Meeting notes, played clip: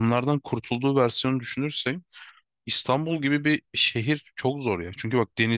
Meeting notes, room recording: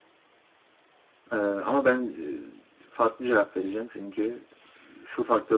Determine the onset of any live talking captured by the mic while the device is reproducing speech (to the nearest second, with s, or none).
1 s